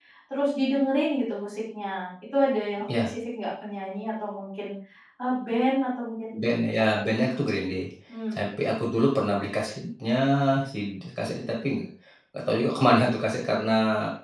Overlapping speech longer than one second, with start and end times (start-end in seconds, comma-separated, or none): none